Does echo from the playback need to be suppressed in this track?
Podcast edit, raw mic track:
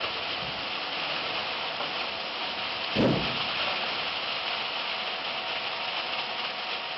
No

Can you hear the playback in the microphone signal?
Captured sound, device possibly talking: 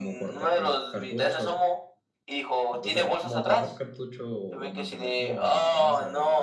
Yes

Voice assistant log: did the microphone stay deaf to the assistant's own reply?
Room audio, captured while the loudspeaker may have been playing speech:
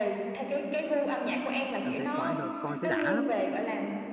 No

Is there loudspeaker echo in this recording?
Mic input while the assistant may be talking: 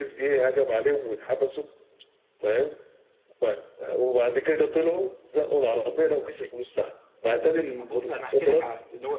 Yes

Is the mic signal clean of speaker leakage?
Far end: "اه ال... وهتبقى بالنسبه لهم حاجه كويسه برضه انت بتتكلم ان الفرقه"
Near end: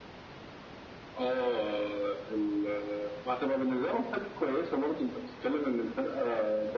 No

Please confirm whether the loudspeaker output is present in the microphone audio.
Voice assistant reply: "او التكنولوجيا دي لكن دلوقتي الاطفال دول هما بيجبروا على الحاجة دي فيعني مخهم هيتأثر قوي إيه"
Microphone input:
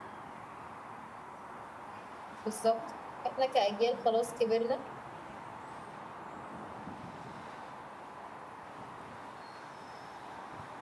No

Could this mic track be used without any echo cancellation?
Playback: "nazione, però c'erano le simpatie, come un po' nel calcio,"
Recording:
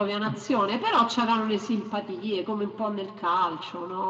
No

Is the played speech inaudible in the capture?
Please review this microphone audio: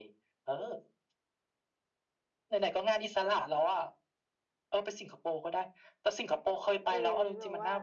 No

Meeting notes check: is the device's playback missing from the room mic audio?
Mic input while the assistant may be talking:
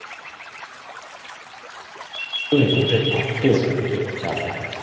Yes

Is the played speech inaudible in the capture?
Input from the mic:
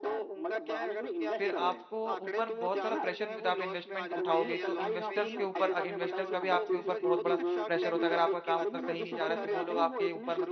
No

